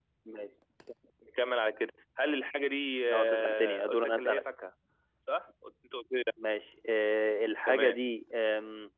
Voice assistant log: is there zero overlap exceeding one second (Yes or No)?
No